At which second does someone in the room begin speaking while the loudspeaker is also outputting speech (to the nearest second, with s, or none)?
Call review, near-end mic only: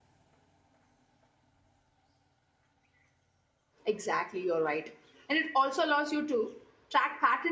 4 s